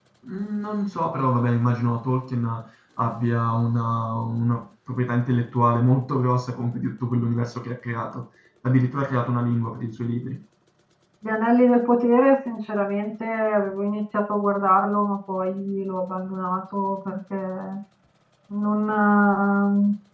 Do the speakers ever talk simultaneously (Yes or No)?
No